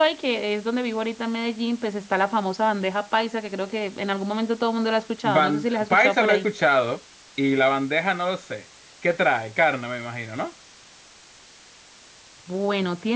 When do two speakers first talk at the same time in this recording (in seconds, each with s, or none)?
5.2 s